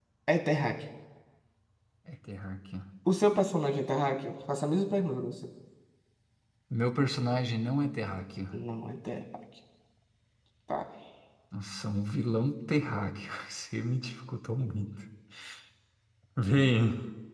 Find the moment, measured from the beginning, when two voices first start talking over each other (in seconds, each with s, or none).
none